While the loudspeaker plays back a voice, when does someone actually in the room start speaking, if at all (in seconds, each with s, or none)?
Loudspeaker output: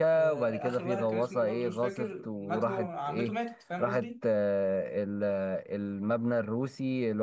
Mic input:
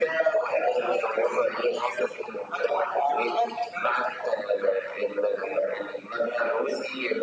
none